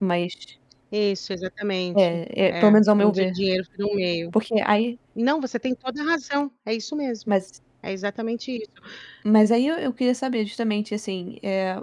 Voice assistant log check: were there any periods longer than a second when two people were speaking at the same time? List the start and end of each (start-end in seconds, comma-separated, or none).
1.9-3.2